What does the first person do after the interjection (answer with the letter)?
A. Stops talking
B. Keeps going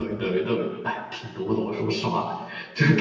B